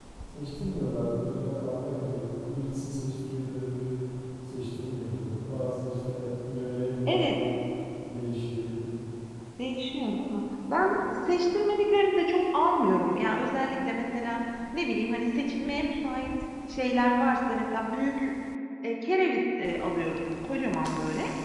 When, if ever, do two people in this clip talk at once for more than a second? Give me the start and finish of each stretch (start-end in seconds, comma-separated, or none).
none